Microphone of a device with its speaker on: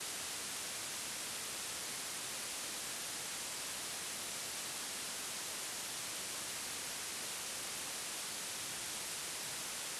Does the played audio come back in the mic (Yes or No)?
No